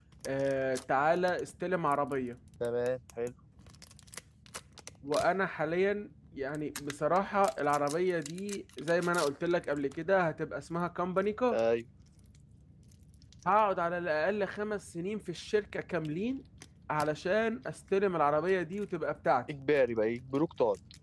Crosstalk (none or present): none